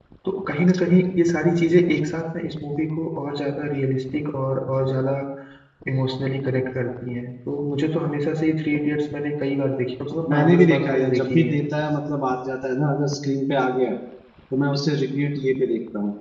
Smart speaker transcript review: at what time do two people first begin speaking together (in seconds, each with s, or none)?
10.3 s